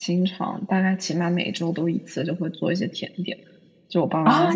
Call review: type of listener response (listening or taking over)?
taking over